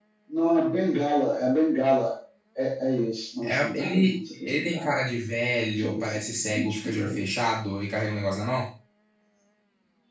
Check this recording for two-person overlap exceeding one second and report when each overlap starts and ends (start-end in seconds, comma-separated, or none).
3.4-4.9, 5.8-7.3